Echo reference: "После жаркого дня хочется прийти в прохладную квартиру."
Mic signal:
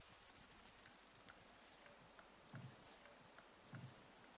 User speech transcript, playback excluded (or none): none